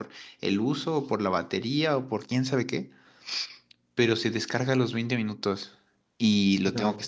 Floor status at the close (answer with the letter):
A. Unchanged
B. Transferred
A